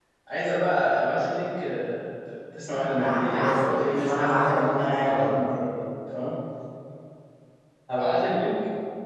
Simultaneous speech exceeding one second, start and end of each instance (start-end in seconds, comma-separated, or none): 3.0-5.5